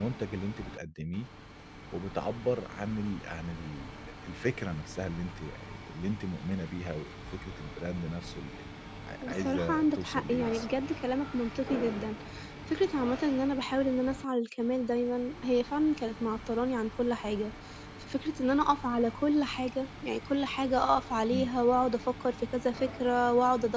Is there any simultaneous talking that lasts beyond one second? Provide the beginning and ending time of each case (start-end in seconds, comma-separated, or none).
9.3-10.7